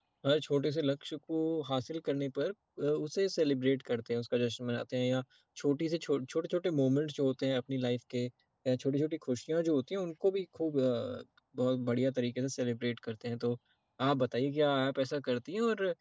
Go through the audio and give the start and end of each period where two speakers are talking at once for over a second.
none

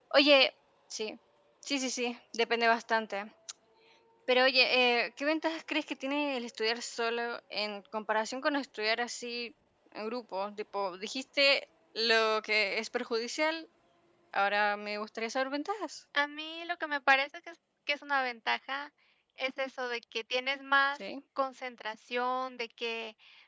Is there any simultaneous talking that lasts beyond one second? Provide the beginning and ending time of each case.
none

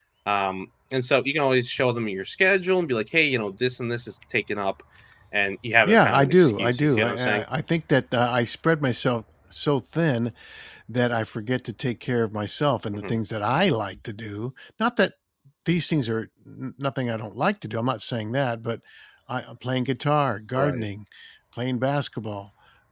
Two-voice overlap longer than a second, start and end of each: 5.8-7.4

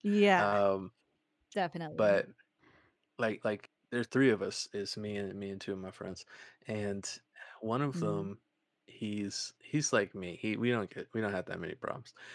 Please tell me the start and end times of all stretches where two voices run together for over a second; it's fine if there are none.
none

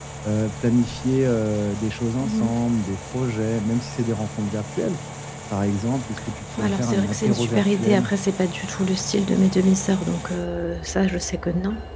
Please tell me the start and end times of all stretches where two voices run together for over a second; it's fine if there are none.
6.6-8.1

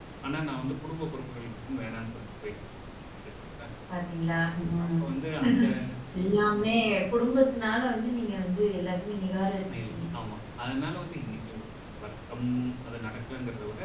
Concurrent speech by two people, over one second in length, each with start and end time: none

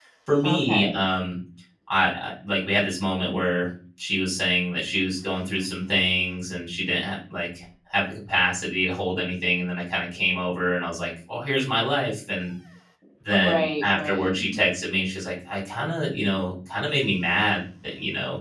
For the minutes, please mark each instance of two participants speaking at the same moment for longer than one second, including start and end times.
13.3-14.6

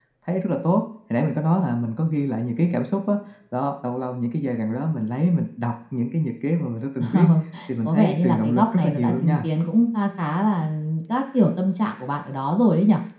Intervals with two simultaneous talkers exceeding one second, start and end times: 7.8-9.4

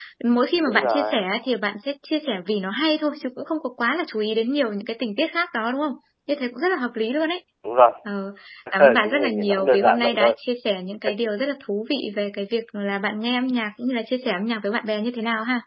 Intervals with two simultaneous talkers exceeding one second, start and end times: 8.8-10.3

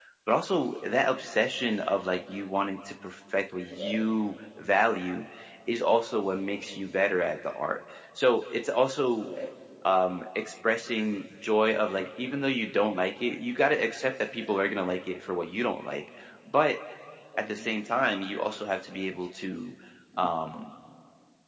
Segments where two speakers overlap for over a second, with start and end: none

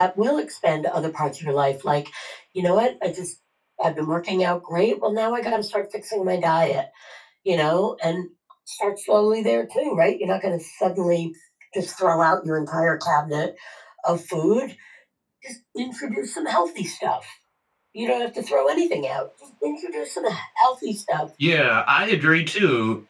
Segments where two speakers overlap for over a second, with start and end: none

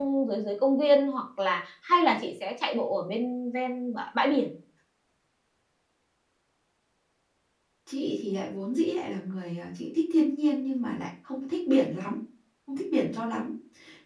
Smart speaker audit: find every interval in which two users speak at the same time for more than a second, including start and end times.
none

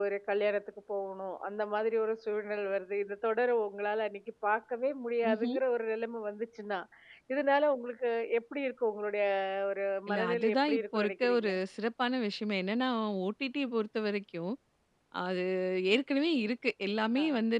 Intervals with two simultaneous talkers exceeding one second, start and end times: 10.1-11.5

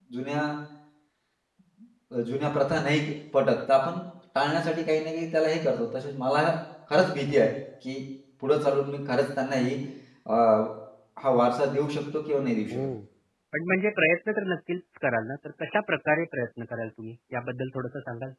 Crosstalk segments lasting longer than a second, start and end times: none

